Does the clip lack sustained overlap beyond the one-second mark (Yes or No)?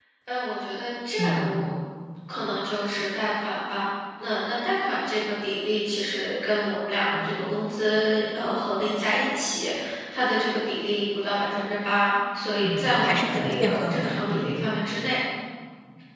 No